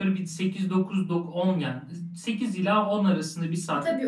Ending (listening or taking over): taking over